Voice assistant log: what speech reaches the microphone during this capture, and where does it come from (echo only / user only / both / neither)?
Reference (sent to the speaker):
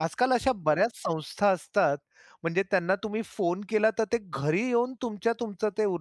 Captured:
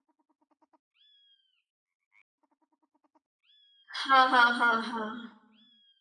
user only